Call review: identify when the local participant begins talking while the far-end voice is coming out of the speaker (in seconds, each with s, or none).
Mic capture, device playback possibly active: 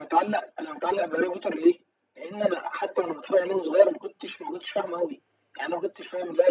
none